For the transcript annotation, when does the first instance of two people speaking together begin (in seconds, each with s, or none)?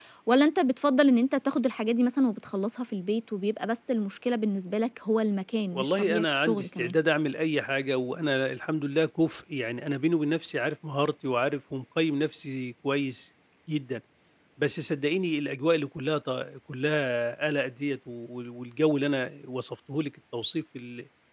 5.7 s